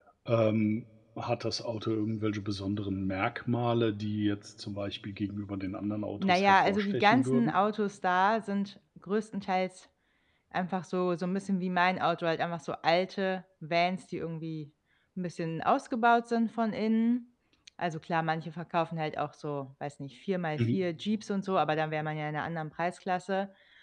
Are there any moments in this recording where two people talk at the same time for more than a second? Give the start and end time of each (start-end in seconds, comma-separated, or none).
6.2-7.5